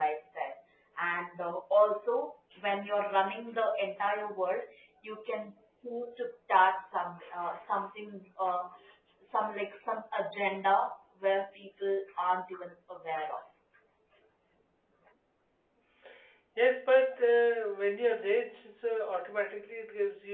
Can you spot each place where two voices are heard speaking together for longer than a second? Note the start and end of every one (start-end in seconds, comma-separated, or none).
none